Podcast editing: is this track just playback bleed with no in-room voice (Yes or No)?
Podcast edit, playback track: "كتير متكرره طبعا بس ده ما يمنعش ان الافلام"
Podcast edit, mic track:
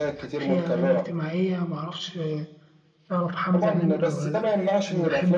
No